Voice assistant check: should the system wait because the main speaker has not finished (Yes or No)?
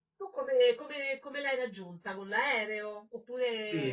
No